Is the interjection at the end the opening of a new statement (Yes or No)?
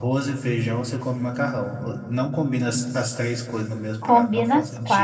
Yes